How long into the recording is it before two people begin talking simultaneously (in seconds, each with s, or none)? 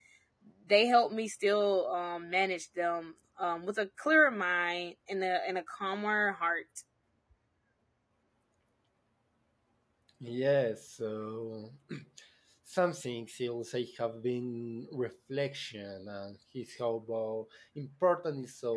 none